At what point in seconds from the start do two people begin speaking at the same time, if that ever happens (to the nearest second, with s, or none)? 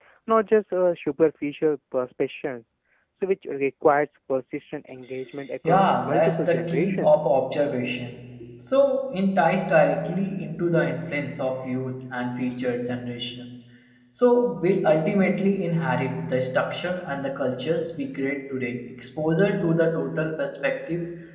6 s